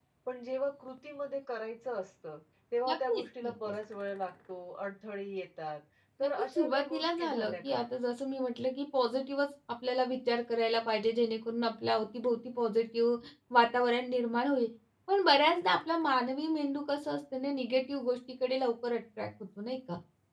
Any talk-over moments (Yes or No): Yes